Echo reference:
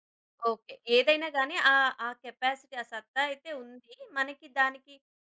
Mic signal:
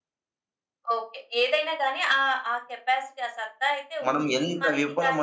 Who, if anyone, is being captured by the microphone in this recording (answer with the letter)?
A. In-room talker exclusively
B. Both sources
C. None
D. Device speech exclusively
B